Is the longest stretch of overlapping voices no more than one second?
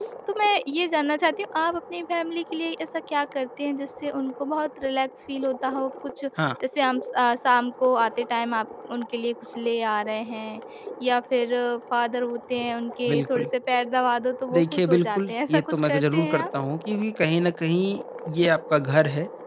No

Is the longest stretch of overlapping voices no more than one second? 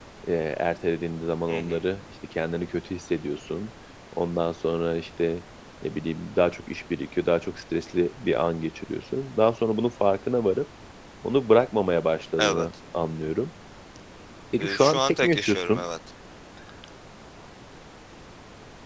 No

